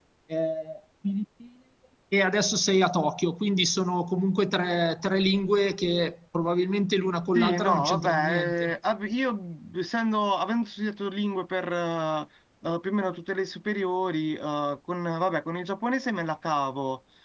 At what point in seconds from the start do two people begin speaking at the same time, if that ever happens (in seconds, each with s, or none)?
7.3 s